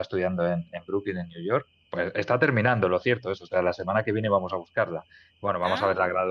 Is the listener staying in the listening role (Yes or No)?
Yes